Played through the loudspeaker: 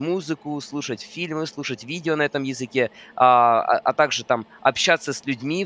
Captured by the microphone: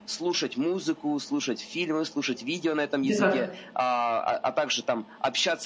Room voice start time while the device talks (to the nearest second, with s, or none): 3 s